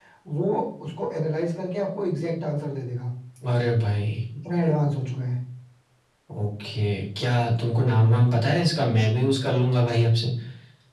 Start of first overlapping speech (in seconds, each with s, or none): none